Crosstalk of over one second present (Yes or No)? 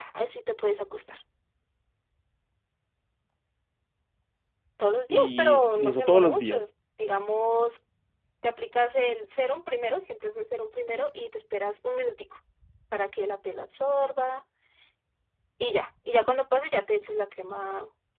Yes